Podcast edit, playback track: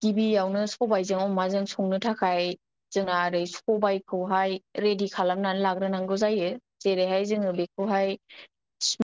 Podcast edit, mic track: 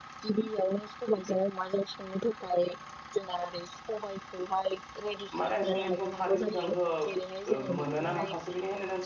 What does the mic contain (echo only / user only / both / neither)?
both